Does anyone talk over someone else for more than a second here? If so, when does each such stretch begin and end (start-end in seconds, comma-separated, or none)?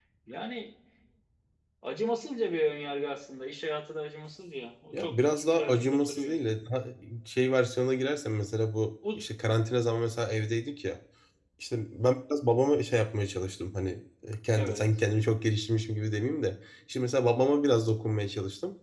4.9-6.4